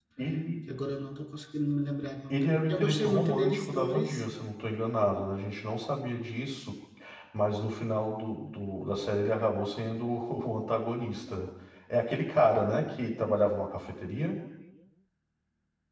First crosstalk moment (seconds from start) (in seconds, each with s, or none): 2.3 s